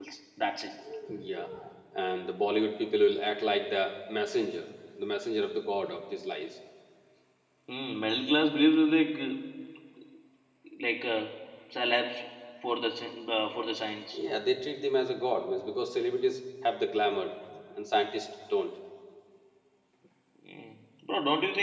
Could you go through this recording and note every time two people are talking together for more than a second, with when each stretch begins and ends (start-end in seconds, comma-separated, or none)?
none